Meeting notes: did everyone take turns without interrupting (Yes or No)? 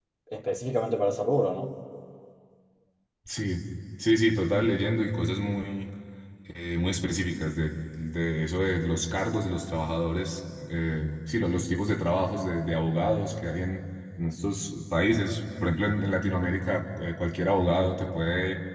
Yes